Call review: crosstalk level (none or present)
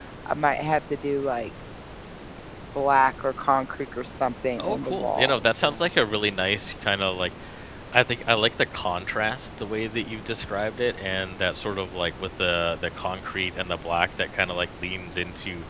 present